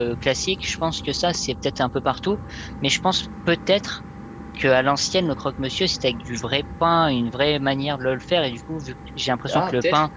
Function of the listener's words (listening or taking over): listening